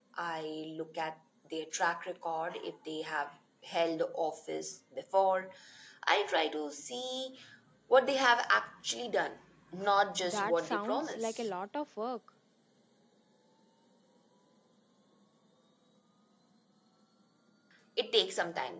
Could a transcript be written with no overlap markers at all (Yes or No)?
No